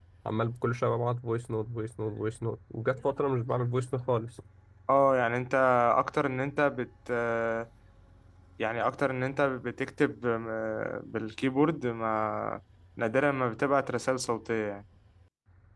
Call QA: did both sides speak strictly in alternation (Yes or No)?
Yes